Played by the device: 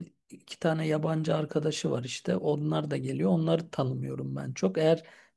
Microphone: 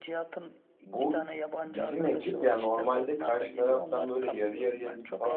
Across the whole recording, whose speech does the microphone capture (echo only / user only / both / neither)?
both